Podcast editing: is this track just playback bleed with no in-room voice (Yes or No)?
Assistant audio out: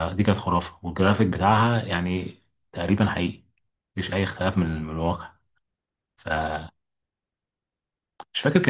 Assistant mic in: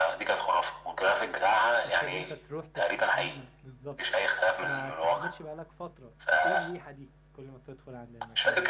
No